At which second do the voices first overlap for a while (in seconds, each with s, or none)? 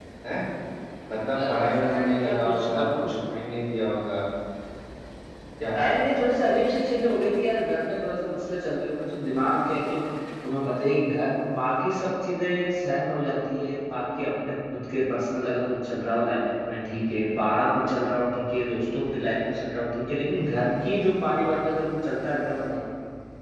1.5 s